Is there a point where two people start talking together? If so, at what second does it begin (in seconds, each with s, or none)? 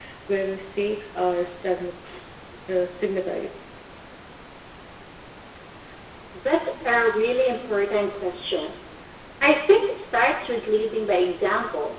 none